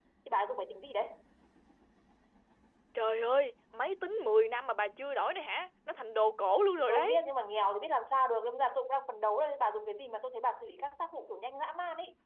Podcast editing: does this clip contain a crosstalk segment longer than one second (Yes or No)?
No